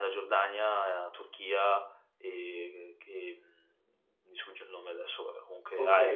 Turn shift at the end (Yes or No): Yes